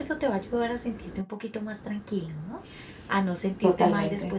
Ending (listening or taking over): listening